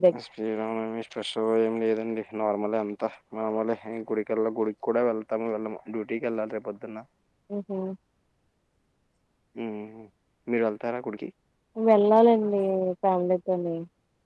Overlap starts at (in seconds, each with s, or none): none